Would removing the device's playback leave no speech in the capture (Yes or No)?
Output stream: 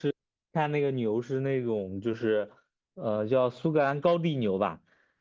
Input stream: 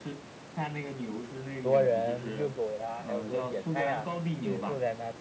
No